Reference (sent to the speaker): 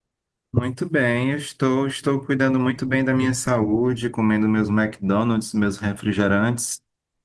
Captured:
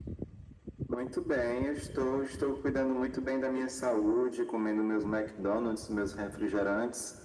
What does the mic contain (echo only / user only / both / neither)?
echo only